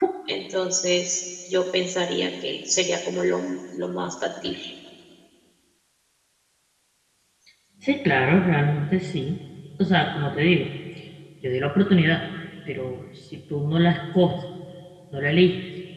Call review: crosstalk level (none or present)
none